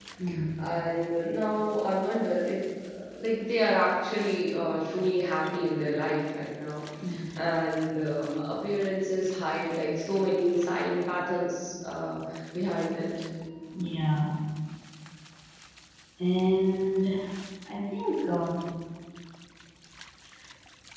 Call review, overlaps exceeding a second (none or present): none